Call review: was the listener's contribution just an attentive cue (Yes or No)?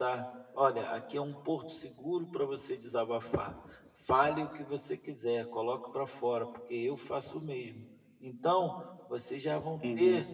Yes